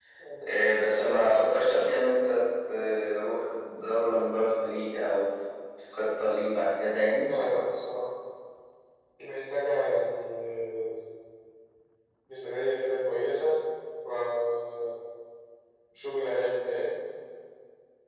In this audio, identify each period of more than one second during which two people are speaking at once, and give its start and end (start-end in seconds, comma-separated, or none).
none